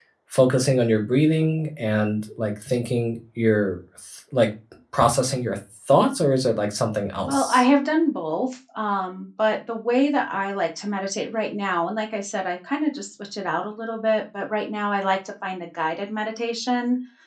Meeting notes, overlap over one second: none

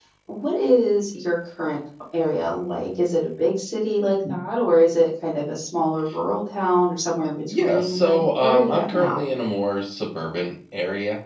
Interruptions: present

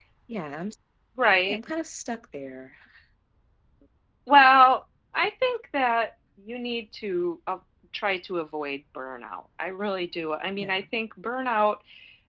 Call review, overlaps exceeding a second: none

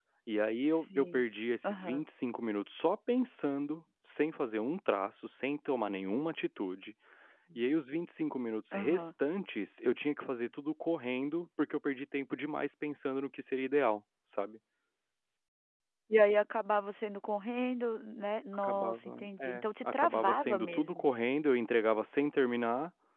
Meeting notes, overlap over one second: present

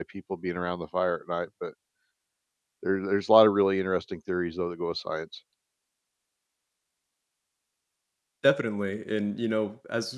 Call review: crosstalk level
none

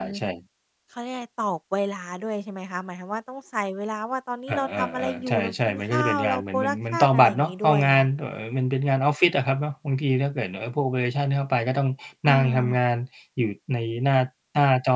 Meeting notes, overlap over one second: present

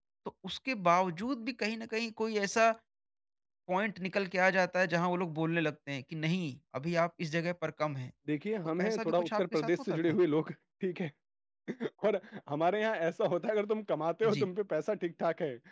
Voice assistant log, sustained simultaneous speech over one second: present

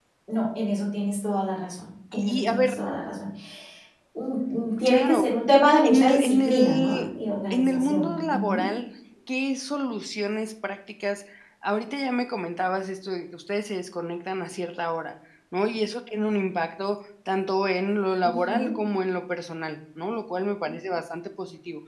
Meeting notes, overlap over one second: present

